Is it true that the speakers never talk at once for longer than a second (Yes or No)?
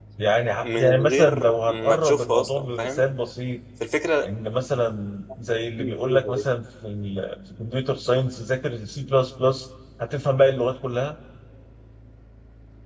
No